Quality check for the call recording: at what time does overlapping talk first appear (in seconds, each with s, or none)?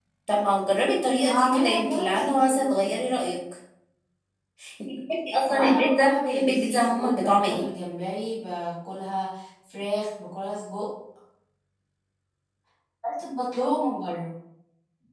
1.2 s